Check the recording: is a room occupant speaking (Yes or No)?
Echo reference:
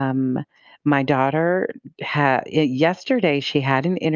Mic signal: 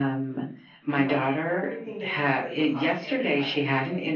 Yes